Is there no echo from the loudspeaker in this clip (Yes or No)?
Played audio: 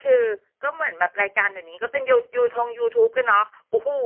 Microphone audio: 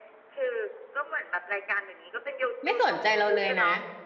No